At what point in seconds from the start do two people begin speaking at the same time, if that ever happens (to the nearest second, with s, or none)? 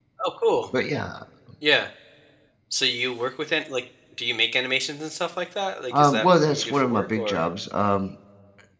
6 s